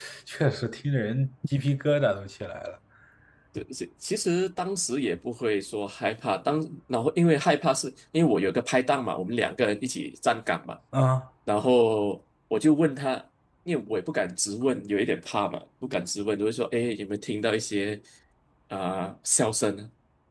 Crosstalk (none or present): none